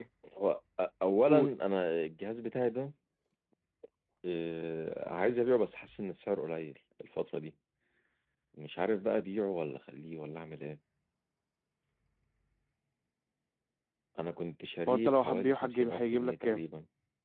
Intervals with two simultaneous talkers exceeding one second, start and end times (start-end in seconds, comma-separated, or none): 14.9-16.6